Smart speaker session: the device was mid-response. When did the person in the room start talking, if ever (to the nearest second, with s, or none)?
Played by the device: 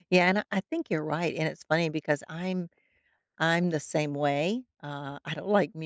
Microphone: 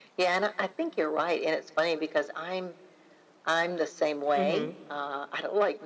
4 s